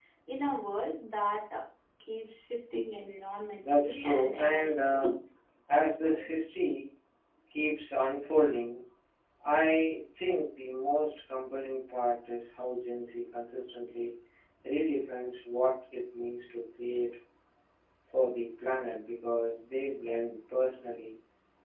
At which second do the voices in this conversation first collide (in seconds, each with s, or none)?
3.7 s